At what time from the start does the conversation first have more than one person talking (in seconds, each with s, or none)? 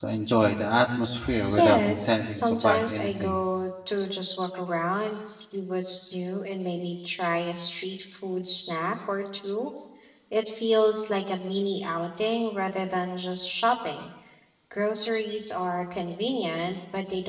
1.3 s